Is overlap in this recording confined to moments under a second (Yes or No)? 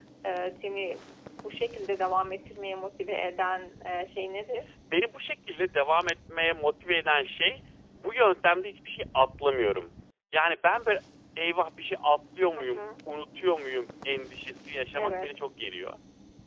Yes